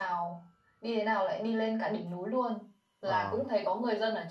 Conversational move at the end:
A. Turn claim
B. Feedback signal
B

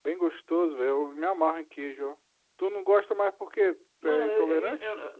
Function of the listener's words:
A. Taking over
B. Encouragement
A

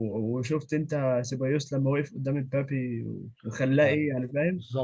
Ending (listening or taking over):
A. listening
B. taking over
B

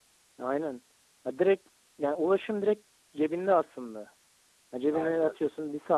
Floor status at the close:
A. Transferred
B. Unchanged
B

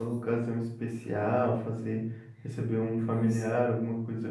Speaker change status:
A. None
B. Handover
A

